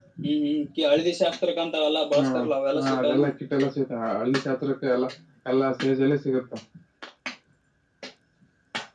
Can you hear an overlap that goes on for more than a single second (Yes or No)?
No